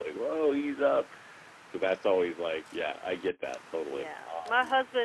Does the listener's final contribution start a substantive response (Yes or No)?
Yes